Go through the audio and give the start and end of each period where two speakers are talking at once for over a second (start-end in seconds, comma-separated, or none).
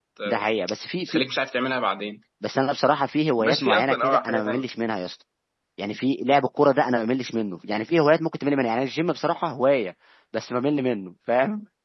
3.4-4.6